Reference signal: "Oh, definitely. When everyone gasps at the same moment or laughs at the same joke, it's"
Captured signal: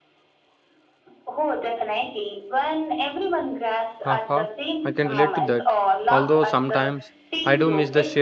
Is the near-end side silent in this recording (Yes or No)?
No